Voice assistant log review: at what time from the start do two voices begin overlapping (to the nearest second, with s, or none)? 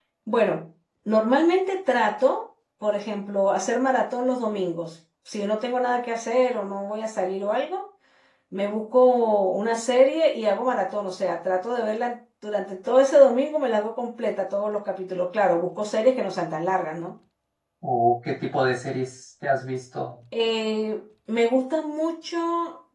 none